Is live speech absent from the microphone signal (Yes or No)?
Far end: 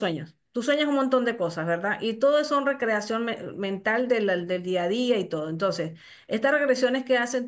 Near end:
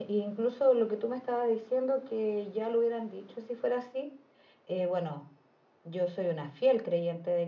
No